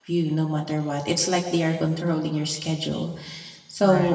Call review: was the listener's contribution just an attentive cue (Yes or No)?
Yes